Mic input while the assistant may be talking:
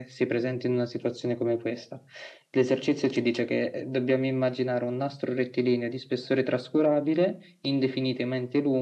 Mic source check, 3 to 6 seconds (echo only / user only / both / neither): echo only